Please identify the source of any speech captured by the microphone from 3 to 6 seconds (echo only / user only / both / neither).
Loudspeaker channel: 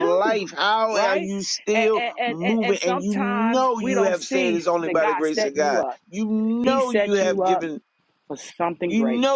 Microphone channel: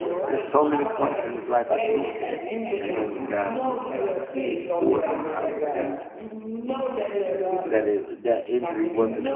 both